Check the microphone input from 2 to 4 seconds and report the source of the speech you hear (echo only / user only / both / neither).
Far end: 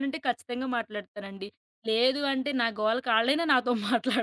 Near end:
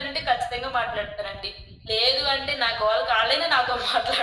echo only